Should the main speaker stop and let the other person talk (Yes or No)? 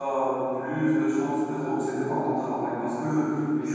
No